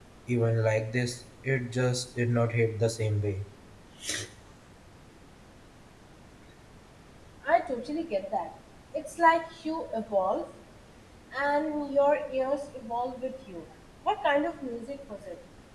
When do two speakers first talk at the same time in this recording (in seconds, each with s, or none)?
none